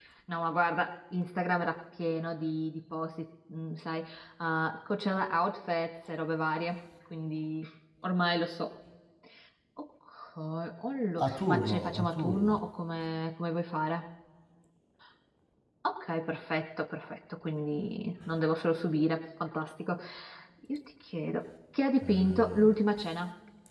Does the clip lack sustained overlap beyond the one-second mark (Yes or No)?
No